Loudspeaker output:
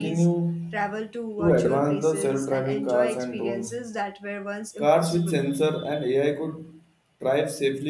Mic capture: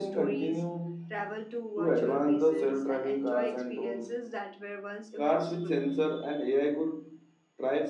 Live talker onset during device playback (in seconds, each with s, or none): none